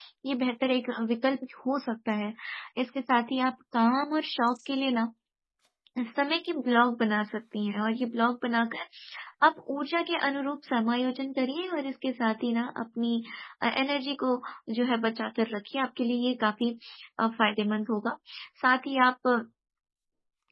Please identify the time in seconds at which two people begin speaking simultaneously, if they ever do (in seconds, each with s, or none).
none